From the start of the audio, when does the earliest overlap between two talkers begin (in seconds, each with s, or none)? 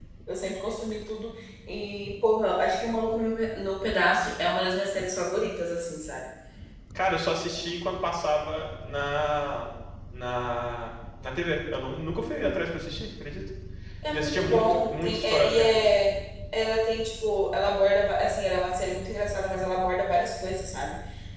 14.1 s